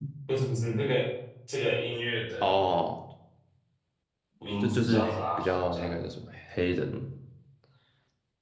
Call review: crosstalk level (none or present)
present